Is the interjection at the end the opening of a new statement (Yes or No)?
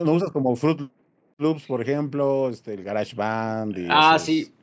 Yes